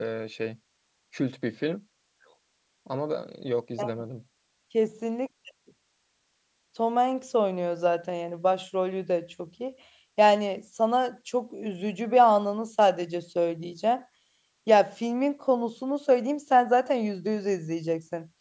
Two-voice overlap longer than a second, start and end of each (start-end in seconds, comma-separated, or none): none